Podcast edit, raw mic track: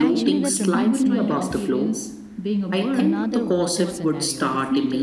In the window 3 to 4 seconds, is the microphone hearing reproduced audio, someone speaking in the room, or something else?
both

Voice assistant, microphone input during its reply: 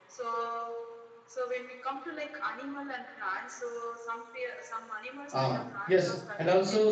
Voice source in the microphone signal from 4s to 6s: both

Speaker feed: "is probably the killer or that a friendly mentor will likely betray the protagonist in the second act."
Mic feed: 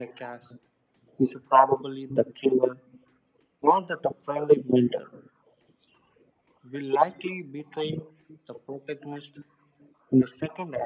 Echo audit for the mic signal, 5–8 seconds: echo only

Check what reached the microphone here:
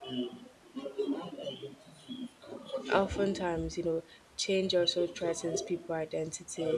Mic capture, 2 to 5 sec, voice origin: both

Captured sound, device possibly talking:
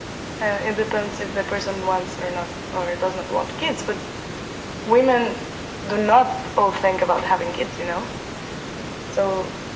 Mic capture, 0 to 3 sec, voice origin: echo only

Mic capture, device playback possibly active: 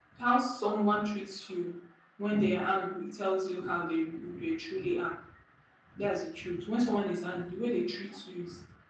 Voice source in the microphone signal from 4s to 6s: echo only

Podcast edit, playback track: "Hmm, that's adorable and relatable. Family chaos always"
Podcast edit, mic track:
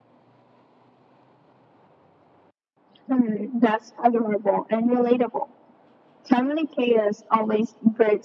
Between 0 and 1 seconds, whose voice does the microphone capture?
neither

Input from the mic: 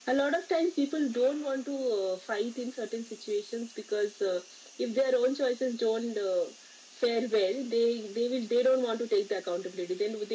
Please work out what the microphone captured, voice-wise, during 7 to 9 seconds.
echo only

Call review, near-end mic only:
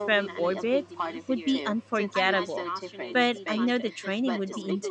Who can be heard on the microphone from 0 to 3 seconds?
both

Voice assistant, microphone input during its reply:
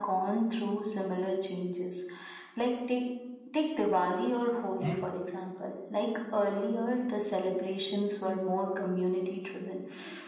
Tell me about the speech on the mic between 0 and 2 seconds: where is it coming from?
echo only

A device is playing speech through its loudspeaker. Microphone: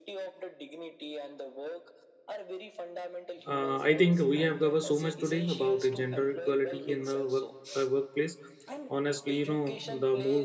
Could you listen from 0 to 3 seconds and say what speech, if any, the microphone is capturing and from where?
echo only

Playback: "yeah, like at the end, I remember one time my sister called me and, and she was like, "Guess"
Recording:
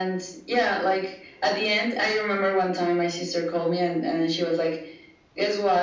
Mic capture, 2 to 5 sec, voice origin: echo only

